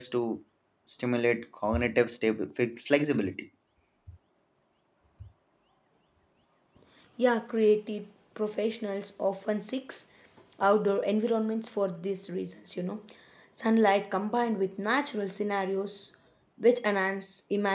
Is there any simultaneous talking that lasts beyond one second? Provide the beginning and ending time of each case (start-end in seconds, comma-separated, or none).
none